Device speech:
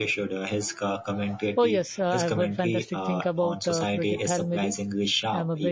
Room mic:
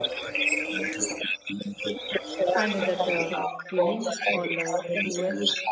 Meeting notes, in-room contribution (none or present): present